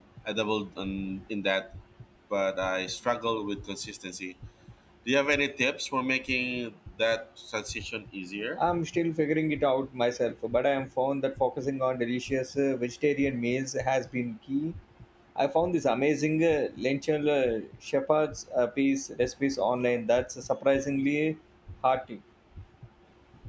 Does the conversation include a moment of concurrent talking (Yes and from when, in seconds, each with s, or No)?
No